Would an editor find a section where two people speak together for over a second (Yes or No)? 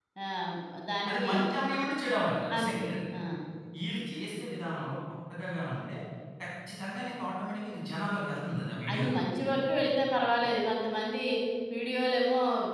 No